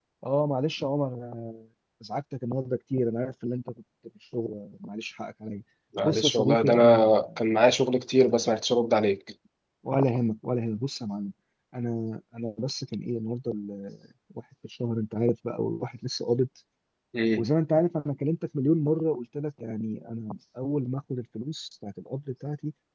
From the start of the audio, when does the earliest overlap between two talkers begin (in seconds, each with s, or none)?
6.0 s